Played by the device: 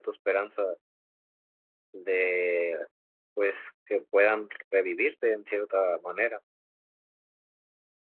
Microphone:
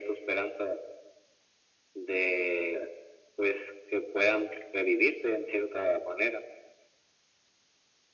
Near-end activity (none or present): none